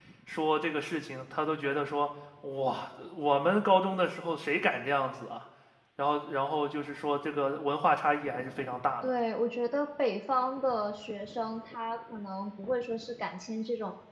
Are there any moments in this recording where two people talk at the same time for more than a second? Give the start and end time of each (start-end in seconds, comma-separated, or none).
none